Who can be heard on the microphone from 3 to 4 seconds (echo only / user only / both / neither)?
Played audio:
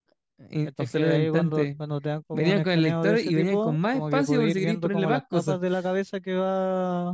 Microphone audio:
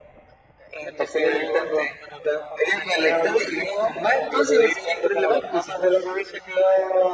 echo only